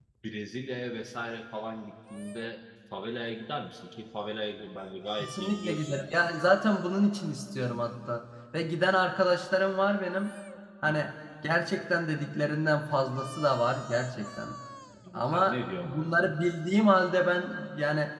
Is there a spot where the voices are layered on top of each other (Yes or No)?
Yes